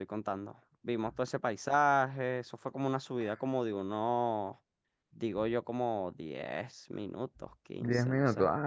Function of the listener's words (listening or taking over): taking over